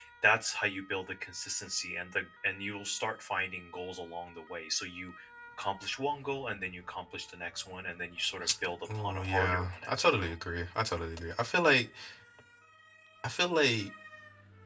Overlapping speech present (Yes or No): Yes